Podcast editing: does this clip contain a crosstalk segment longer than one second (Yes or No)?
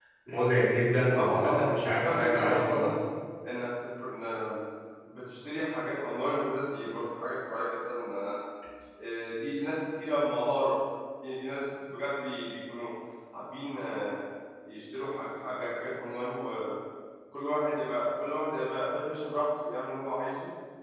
Yes